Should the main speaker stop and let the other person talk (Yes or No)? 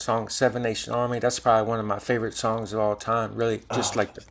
No